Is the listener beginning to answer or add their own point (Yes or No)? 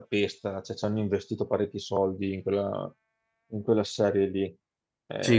Yes